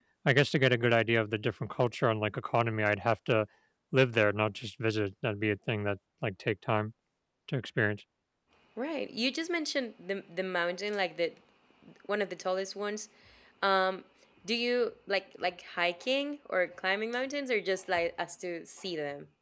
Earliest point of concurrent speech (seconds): none

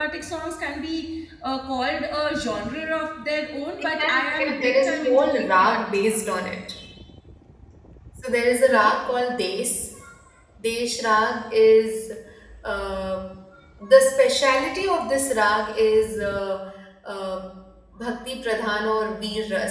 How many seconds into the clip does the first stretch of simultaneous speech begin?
4.0 s

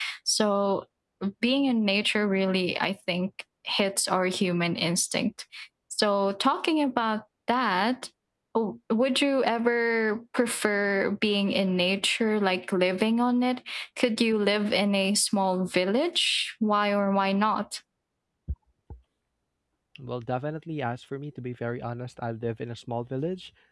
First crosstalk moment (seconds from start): none

